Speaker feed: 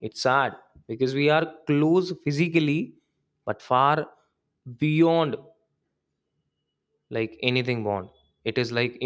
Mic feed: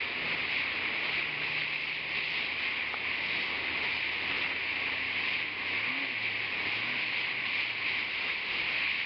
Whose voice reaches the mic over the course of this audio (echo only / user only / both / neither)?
neither